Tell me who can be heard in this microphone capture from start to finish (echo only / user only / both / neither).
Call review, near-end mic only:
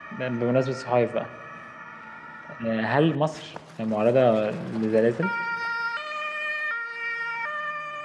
user only